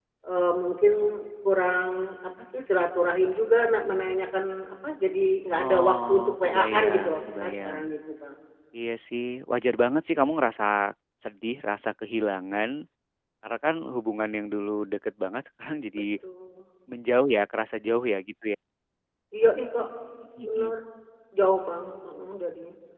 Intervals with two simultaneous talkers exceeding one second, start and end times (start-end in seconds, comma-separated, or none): 5.6-7.8